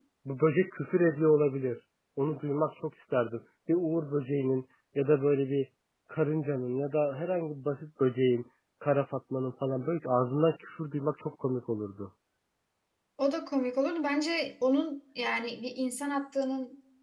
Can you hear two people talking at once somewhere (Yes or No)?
No